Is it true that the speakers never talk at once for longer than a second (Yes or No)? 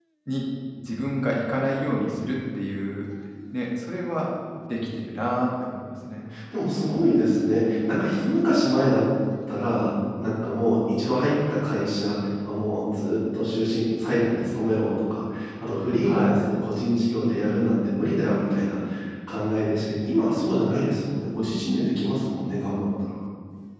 Yes